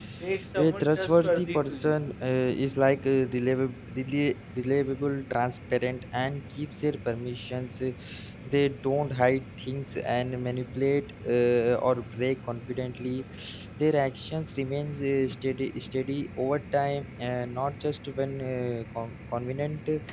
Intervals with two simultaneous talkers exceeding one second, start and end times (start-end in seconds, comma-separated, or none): 0.6-1.9